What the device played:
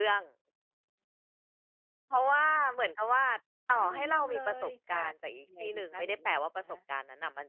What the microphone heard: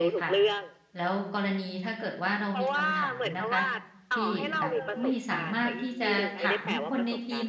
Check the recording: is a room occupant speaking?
Yes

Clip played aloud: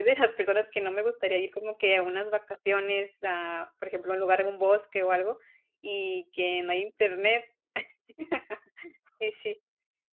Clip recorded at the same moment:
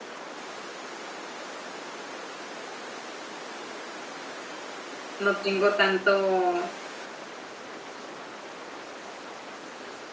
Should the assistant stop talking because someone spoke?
Yes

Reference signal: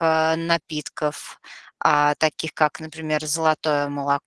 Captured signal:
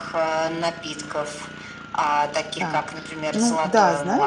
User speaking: Yes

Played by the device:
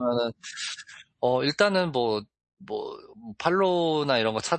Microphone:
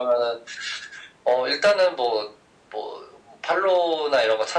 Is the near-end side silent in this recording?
Yes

